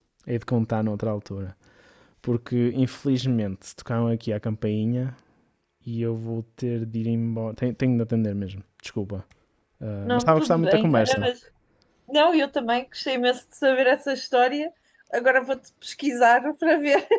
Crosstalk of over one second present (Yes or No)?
Yes